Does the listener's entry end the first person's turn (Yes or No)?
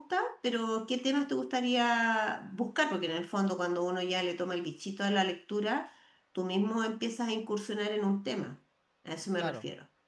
Yes